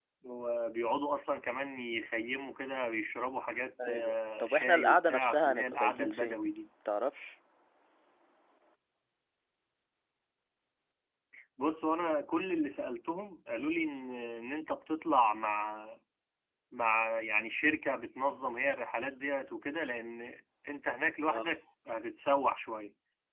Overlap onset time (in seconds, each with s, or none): 3.8 s